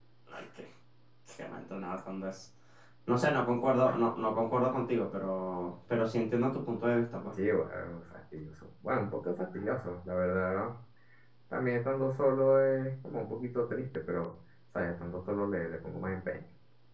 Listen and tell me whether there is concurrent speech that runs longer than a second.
No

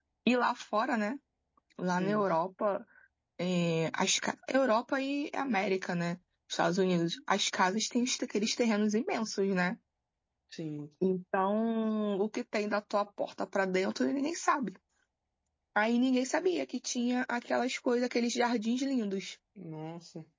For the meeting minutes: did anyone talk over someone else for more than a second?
No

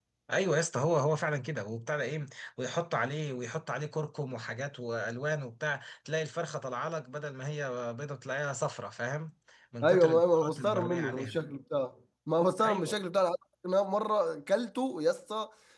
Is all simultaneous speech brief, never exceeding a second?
No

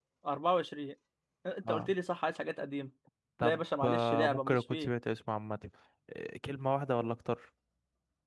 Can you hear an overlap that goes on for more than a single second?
Yes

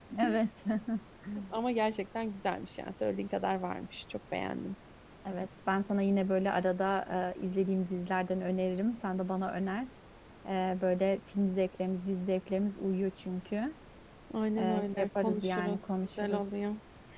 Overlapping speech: Yes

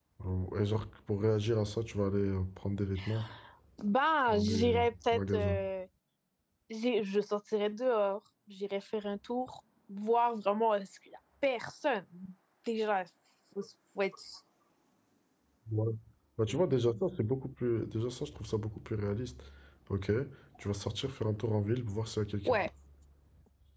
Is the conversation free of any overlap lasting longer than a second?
No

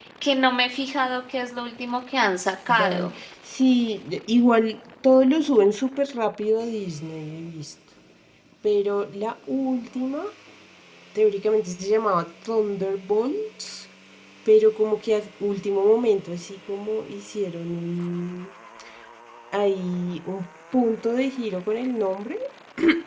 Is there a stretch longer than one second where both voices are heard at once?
No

